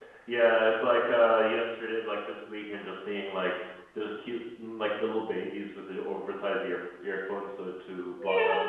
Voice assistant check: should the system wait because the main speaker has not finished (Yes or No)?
No